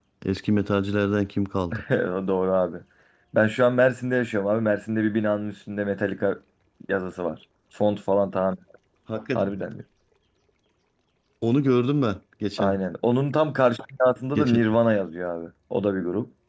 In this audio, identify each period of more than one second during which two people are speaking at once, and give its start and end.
none

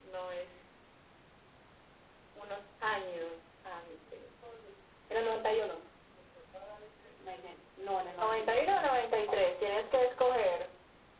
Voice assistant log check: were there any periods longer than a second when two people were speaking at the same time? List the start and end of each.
8.2-9.4

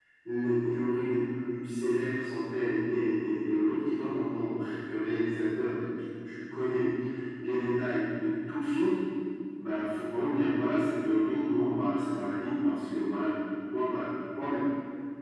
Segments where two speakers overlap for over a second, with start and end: none

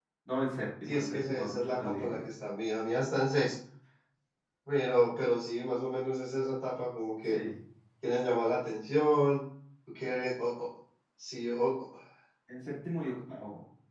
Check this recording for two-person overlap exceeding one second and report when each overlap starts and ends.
0.9-2.2

